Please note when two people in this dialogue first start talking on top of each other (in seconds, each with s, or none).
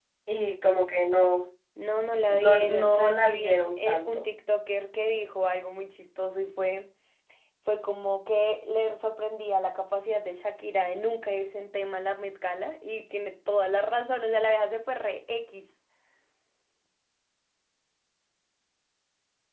2.3 s